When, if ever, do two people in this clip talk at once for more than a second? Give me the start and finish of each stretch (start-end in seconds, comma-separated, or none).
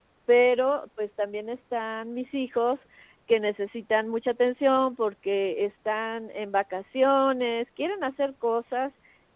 none